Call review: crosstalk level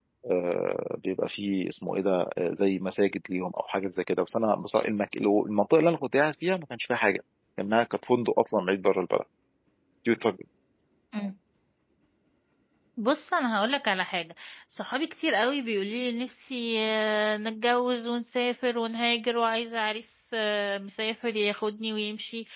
none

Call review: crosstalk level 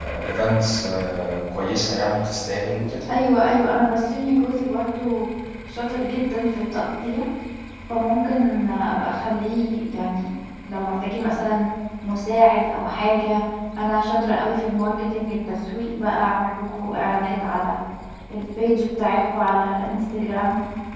none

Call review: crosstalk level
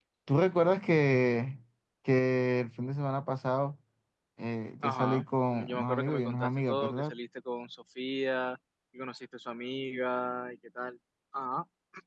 present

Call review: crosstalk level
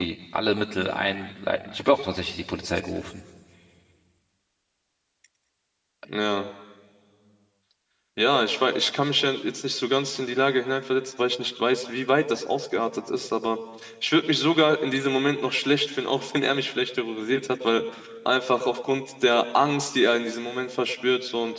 none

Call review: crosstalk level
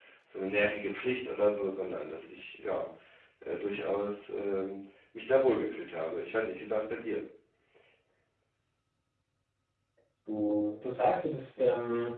none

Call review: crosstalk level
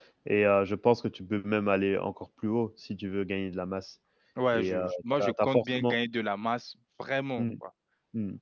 present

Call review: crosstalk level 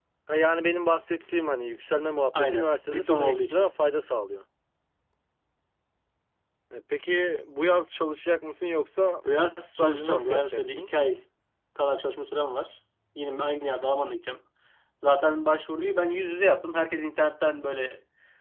present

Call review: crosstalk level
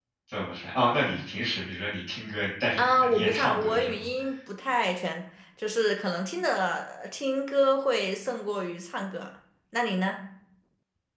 present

